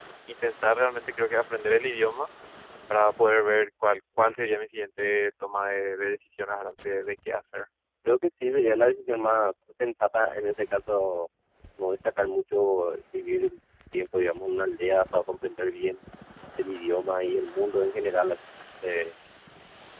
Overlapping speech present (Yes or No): No